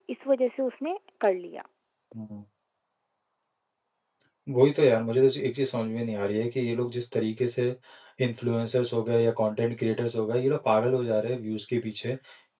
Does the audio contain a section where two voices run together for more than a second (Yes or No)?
No